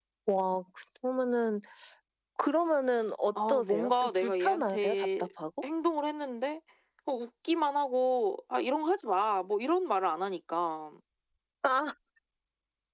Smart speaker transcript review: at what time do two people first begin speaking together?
3.4 s

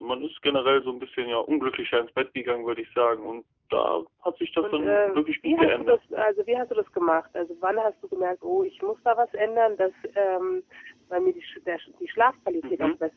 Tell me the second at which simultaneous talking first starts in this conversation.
4.6 s

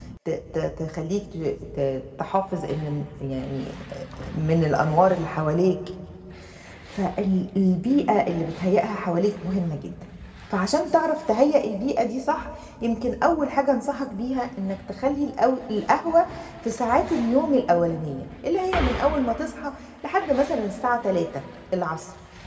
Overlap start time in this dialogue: none

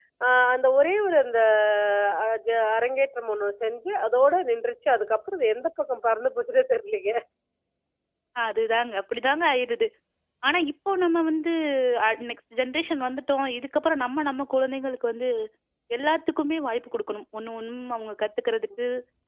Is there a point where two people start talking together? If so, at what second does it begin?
none

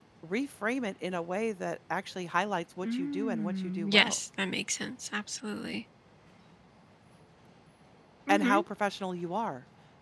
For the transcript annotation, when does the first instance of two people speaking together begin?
2.8 s

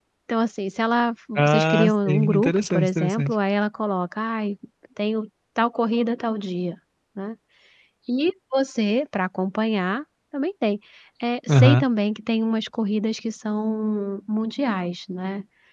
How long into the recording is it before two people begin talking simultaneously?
1.4 s

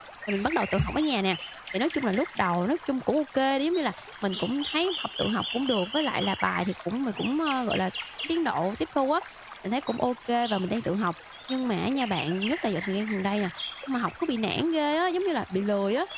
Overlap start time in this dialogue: none

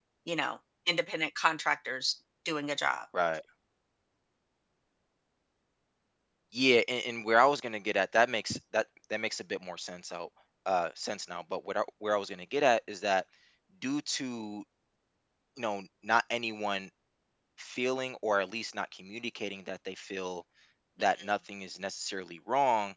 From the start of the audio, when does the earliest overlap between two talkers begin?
none

